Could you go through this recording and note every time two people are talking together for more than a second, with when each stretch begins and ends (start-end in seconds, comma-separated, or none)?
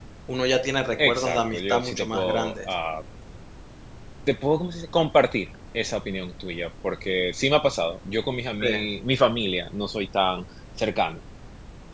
1.0-2.6